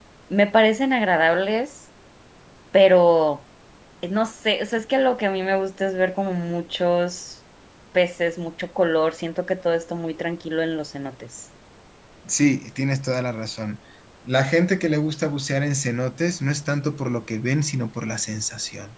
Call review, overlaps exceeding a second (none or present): none